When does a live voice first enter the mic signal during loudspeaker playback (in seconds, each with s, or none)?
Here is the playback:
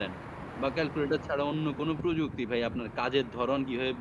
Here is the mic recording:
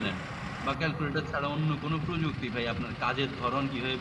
none